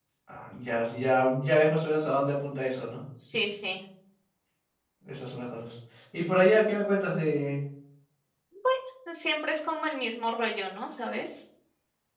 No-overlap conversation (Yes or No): Yes